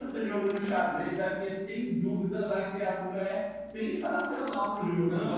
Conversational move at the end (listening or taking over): taking over